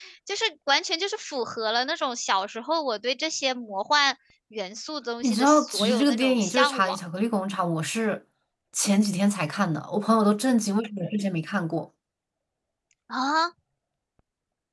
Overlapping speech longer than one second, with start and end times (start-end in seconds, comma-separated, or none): 5.2-7.0